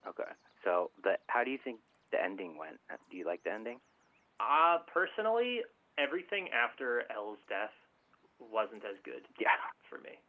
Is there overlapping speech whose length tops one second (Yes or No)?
No